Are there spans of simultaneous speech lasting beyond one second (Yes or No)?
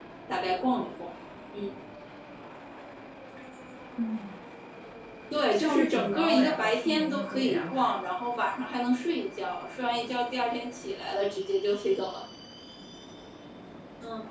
Yes